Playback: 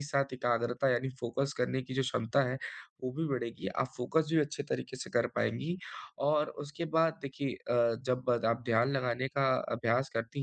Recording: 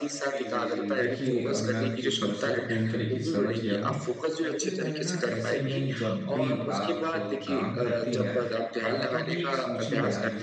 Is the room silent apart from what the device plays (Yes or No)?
No